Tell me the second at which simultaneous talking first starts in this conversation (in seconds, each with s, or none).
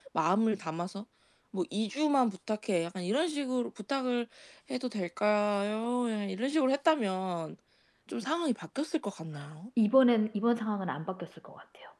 none